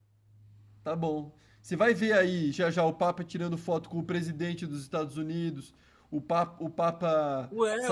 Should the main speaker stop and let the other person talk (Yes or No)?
Yes